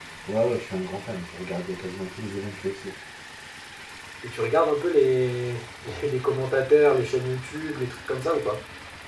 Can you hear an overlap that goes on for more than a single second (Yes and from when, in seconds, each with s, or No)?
No